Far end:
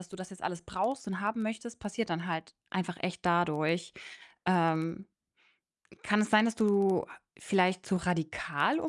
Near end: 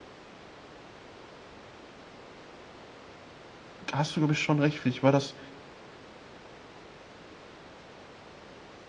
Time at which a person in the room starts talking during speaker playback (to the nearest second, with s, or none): 4 s